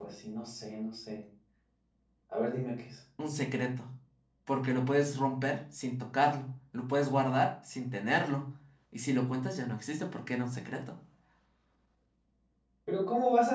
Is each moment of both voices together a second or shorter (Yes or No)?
Yes